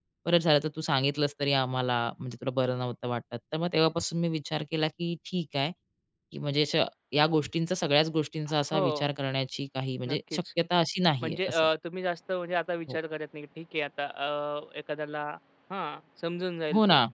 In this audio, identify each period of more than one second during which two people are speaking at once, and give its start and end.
none

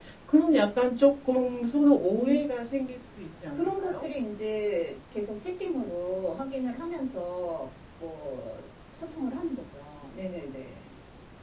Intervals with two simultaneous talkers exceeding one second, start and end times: none

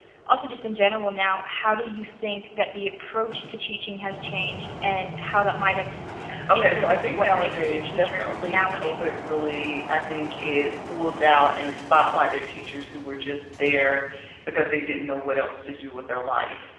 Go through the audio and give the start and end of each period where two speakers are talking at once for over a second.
6.5-9.1

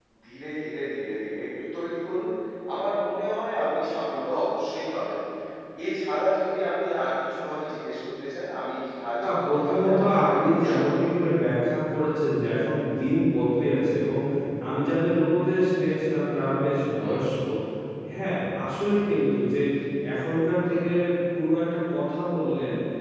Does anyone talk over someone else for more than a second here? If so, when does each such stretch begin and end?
9.2-10.9

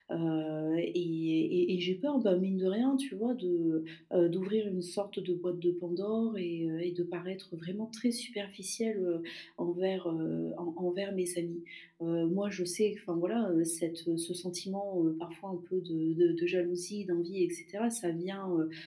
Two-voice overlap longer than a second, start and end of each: none

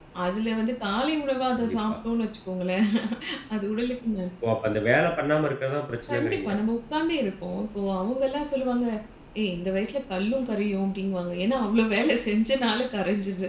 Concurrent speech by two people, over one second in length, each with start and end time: none

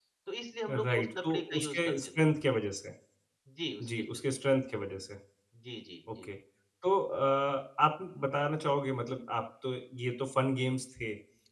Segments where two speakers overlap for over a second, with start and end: 0.7-2.1

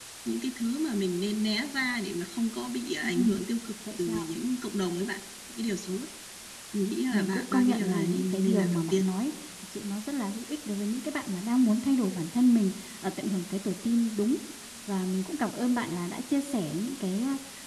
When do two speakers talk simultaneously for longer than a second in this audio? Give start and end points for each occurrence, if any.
7.1-9.1

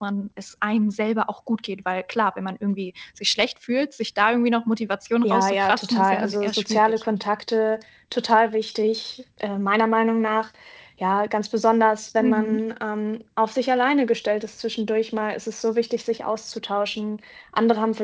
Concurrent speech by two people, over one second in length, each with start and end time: 5.2-7.0

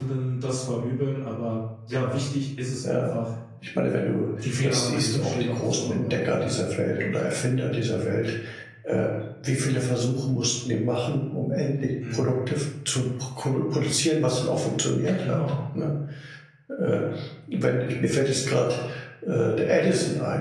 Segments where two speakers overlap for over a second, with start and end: 4.6-6.5

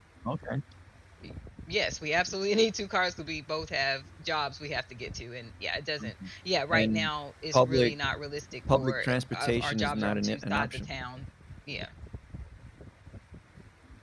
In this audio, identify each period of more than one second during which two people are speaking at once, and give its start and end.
8.7-10.9

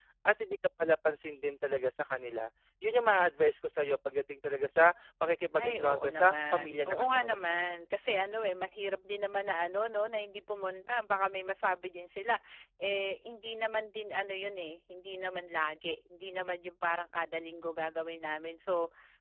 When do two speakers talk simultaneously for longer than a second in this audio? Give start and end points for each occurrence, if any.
5.6-7.5

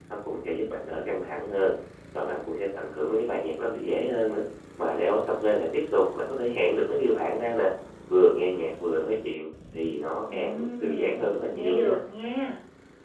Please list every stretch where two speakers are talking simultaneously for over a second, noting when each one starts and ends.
10.3-12.0

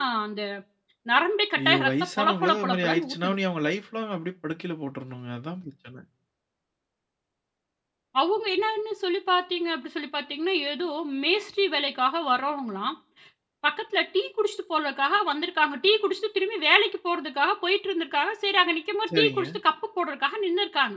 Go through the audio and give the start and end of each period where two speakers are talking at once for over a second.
1.6-3.4

